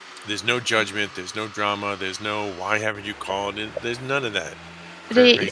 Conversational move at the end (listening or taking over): taking over